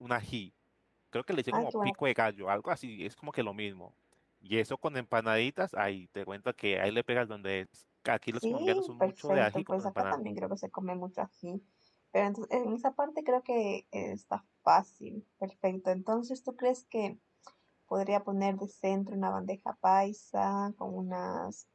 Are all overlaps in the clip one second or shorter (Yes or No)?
No